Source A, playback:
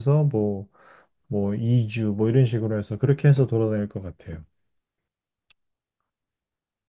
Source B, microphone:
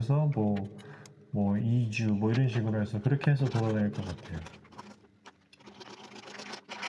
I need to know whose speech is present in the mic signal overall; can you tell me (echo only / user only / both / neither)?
echo only